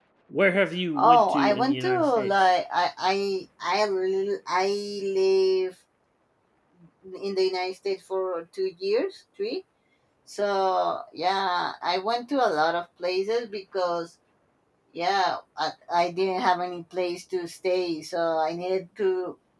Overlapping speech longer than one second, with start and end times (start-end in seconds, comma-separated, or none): 1.0-2.3